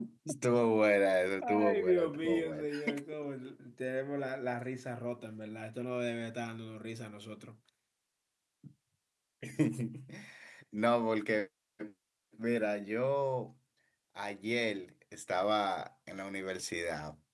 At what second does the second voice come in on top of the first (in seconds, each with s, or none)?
1.4 s